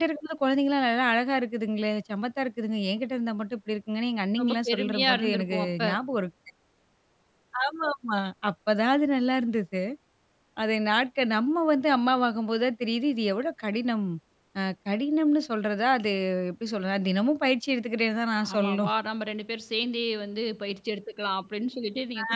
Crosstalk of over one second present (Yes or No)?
Yes